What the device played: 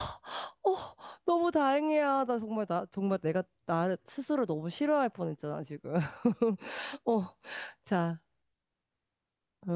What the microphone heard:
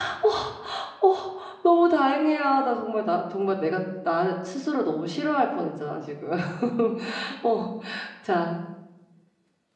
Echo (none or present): present